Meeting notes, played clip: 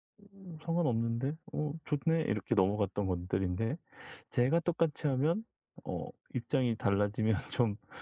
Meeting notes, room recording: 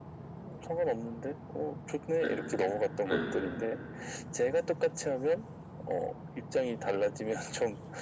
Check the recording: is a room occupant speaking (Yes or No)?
Yes